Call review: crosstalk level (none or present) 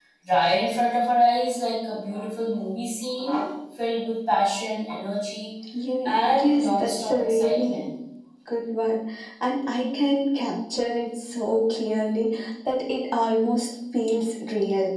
present